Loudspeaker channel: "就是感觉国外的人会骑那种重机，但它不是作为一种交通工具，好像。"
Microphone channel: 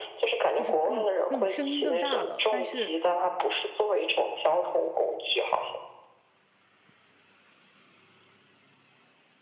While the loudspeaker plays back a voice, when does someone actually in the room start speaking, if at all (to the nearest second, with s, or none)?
1 s